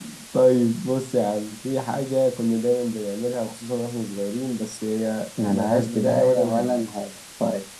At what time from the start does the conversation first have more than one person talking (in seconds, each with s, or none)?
5.4 s